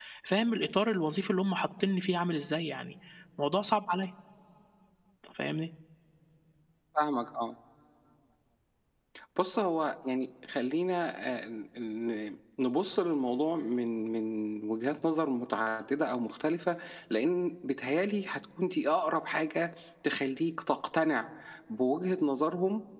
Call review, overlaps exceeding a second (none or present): none